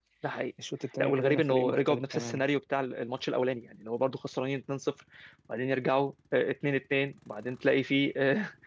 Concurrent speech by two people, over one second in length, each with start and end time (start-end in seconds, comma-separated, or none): 1.0-2.4